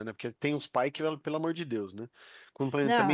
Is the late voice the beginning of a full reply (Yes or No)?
No